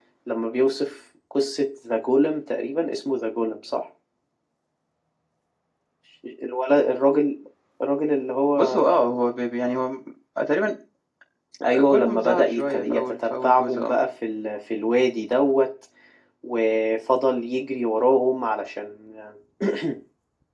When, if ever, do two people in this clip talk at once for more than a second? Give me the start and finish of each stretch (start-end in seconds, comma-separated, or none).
11.9-14.0